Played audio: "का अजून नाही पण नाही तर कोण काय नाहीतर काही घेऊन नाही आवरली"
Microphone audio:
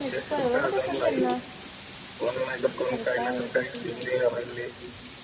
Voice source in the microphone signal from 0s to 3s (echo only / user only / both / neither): both